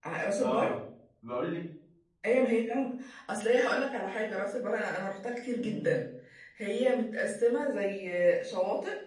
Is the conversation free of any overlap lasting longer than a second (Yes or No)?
Yes